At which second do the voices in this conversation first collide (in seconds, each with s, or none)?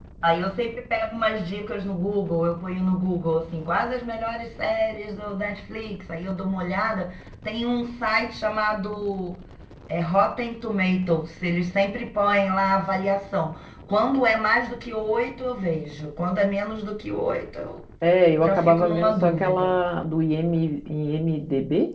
18.4 s